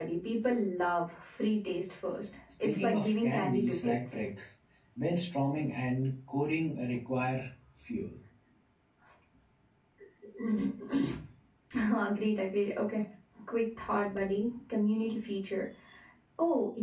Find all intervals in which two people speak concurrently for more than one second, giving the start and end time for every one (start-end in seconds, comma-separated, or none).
2.6-4.2